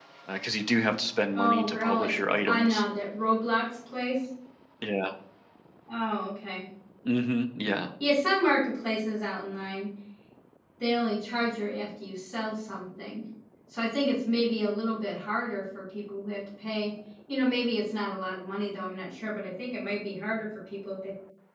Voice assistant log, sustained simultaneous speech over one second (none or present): present